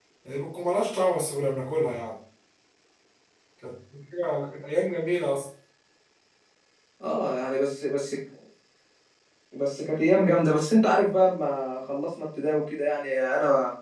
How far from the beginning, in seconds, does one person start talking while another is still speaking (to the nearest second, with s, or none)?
none